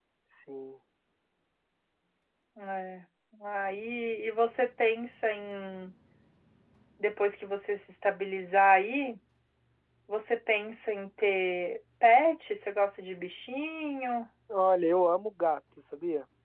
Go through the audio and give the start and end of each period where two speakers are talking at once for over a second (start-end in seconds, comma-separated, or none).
none